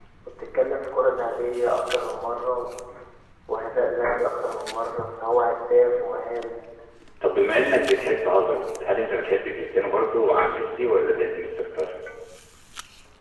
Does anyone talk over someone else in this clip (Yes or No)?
No